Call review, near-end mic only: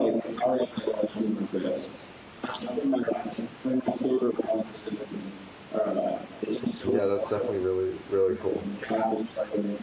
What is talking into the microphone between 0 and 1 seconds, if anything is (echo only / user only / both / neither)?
echo only